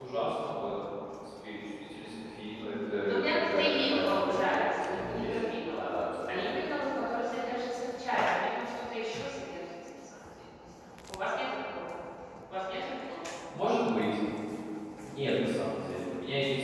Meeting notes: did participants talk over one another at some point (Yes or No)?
Yes